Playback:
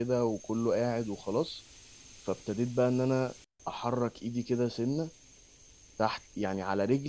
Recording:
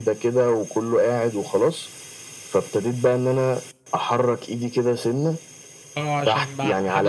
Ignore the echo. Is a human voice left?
Yes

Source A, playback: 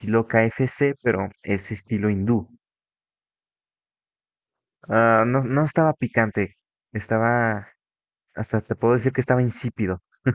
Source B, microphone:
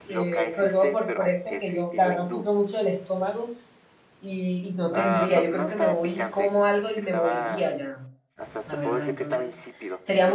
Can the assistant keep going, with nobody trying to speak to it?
No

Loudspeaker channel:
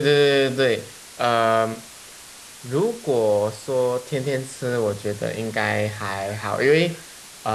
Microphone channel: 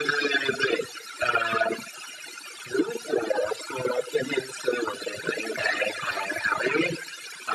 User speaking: No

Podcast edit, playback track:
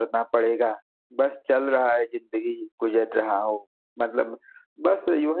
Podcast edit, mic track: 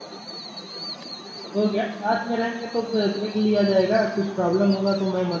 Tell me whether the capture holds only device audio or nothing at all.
No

